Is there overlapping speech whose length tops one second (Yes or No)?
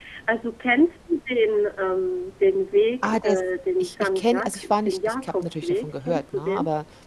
Yes